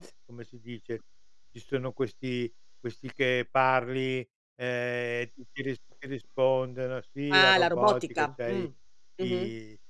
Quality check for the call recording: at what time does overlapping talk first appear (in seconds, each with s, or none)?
7.3 s